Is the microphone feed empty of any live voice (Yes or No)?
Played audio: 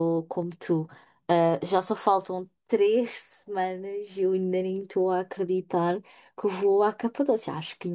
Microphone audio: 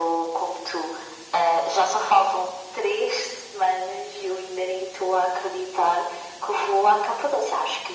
Yes